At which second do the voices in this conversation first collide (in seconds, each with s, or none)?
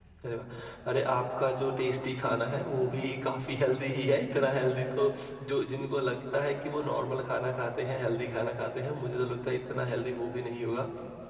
none